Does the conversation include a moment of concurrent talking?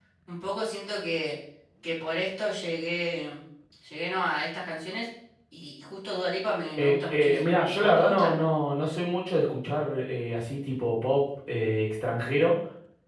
Yes, from 6.8 s

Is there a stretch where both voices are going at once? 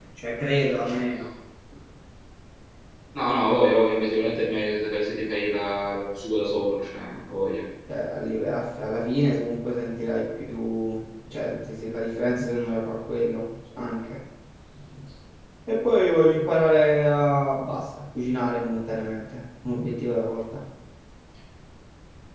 No

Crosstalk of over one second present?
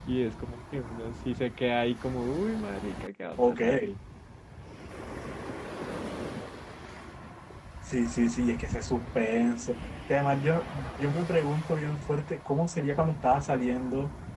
No

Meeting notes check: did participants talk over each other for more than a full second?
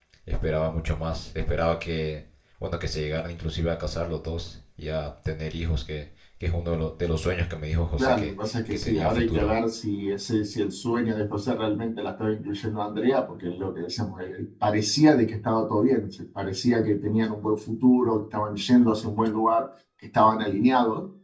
Yes, from 8.0 s

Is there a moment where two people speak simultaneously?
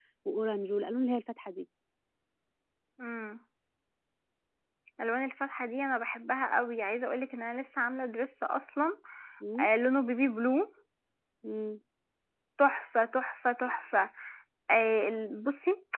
No

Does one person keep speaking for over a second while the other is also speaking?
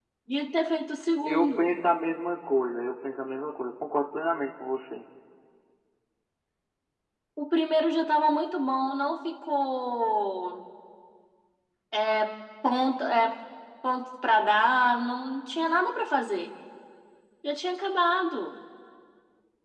No

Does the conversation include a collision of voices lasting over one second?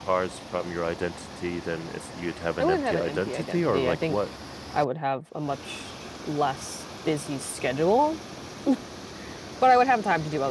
Yes, from 2.6 s

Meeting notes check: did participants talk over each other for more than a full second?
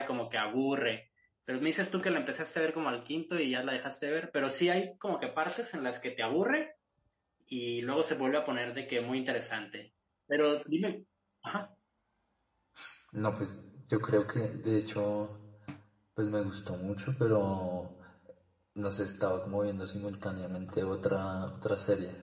No

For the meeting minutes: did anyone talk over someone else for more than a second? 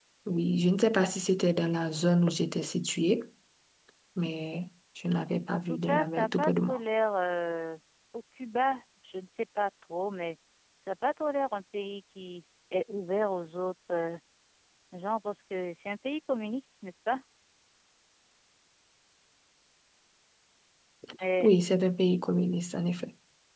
Yes, from 5.5 s

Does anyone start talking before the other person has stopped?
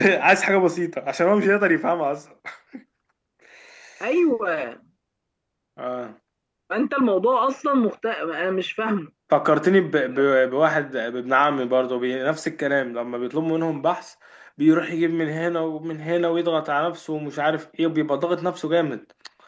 No

